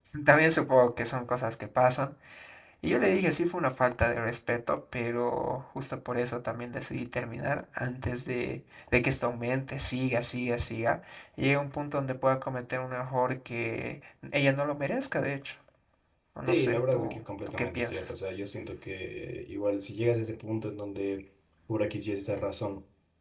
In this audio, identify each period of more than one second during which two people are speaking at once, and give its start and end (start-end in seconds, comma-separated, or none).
16.5-18.1